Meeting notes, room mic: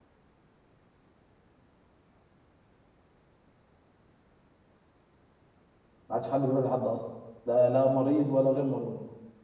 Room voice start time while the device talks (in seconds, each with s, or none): 6.1 s